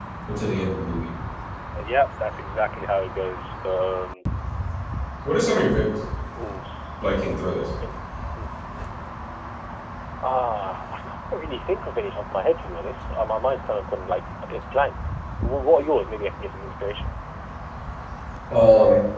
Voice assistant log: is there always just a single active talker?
Yes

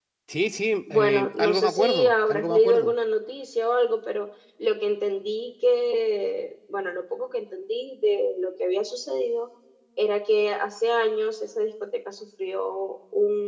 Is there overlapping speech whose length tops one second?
Yes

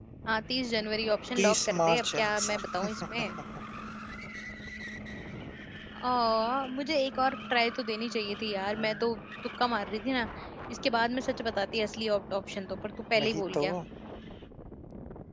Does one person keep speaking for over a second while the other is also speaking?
Yes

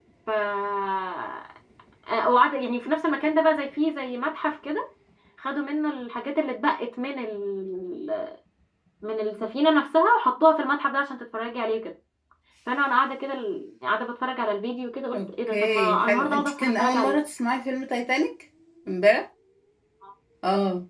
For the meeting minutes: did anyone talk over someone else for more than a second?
Yes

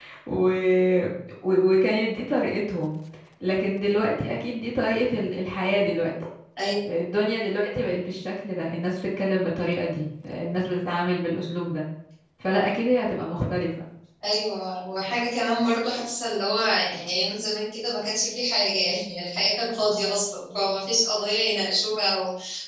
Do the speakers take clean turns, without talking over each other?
Yes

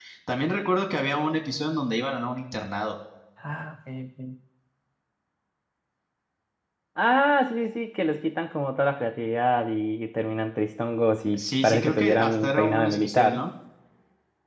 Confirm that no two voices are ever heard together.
No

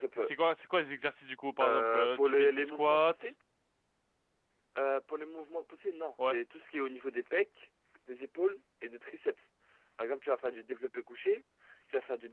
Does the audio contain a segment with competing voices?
Yes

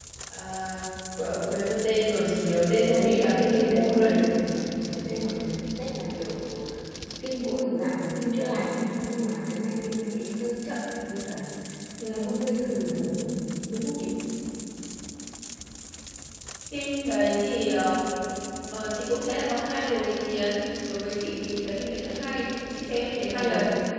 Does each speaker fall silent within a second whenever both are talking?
No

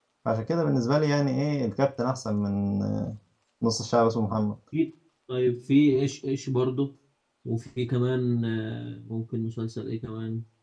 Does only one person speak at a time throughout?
Yes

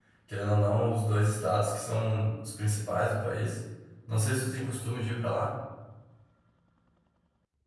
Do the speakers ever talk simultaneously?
No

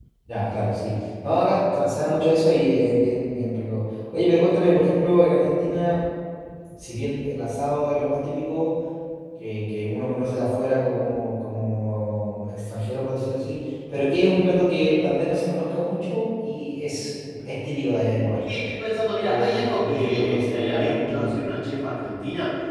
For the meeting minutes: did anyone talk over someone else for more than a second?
Yes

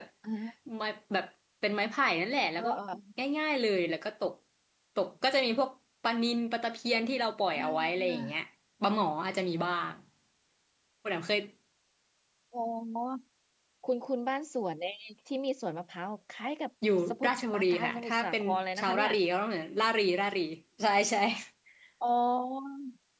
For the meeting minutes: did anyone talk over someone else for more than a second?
Yes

